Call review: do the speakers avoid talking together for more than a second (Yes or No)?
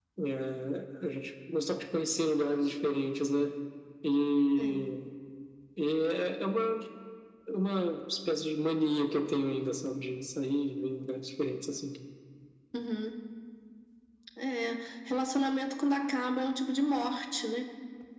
Yes